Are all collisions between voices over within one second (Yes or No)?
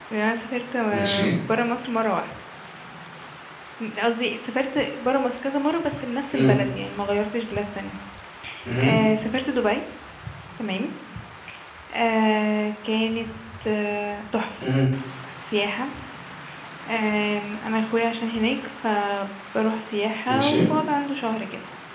Yes